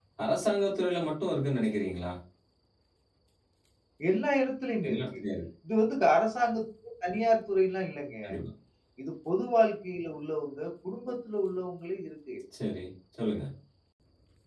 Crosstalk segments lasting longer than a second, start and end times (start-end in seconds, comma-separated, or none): none